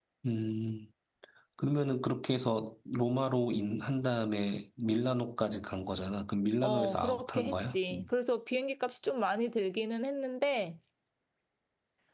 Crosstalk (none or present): present